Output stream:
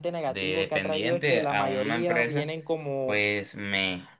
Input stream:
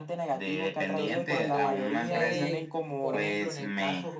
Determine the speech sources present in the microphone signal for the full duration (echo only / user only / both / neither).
both